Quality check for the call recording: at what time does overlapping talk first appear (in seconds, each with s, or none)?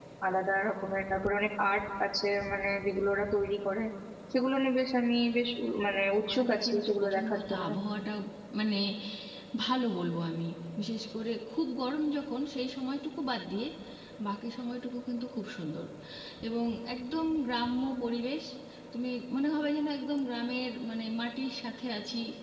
6.1 s